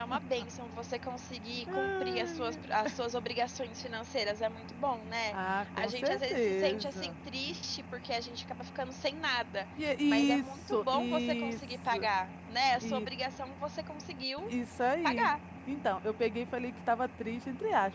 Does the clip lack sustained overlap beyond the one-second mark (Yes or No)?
No